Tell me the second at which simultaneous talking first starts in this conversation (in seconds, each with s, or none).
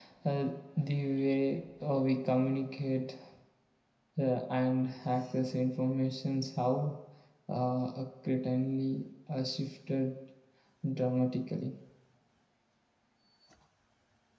none